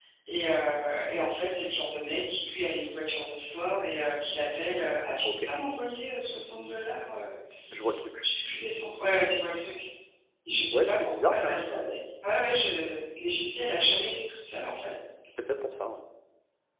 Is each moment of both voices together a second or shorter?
No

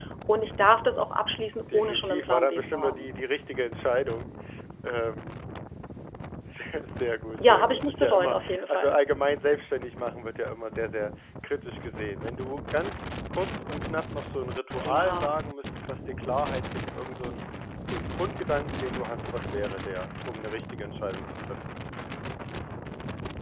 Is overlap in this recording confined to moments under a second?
No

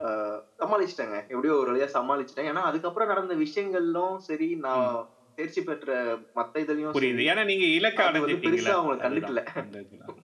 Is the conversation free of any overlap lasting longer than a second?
No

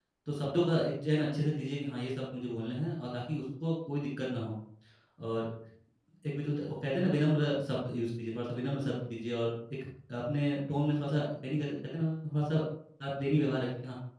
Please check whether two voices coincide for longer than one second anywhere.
No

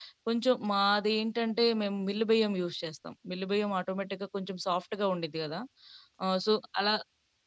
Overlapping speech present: No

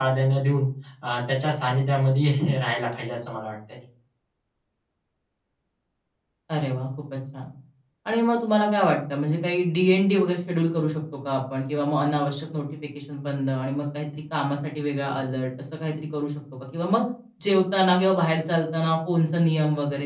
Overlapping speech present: No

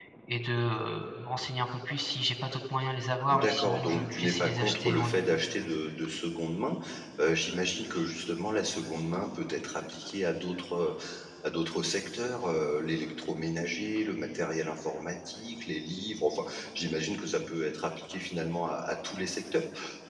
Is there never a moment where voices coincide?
No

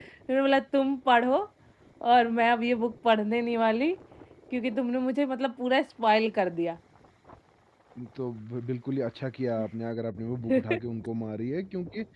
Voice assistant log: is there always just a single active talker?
Yes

